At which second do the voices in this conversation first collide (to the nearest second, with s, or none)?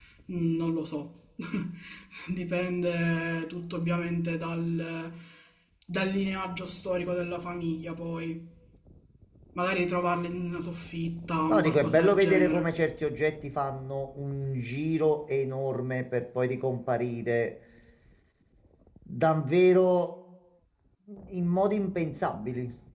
11 s